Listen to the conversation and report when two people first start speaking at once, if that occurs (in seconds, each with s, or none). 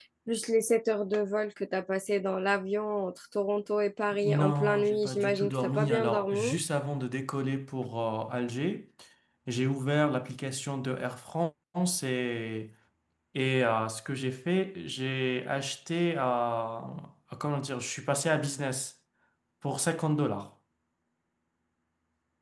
4.1 s